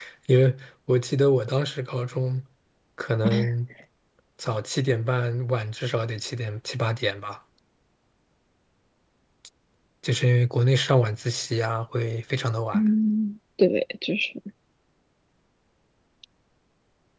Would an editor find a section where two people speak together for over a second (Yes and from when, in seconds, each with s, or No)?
No